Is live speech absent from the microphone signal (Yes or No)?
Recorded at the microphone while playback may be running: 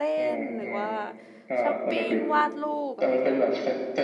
No